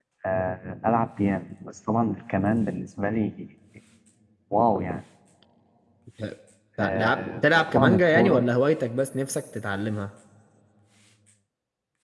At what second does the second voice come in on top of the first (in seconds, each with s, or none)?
6.8 s